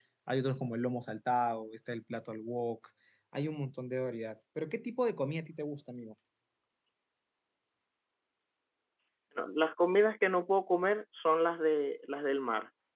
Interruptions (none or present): none